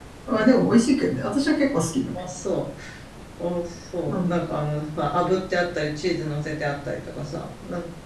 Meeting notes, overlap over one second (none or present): none